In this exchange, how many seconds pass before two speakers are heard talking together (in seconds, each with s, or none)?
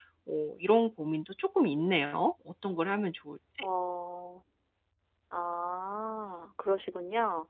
none